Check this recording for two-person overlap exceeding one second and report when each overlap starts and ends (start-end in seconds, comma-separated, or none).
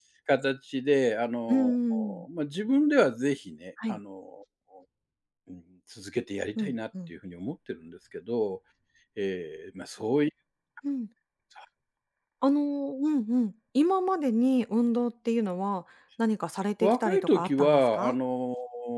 16.8-18.1